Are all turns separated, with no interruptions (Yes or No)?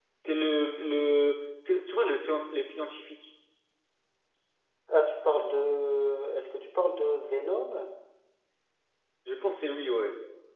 Yes